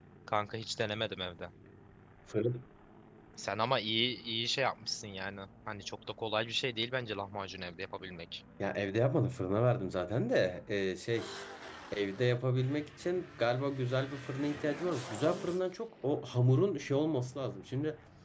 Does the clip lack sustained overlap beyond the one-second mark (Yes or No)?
Yes